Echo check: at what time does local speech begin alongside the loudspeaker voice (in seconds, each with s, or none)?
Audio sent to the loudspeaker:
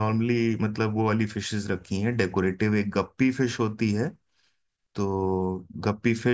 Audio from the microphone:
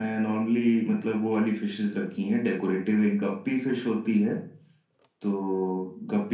none